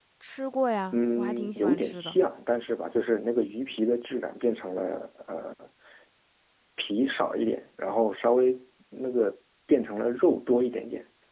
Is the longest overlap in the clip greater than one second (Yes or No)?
Yes